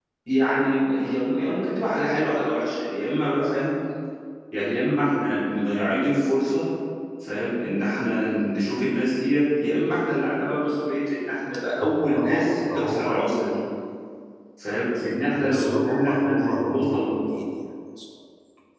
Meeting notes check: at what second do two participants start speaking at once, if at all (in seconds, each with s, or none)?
11.8 s